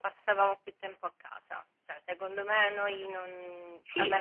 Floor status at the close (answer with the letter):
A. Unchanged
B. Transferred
A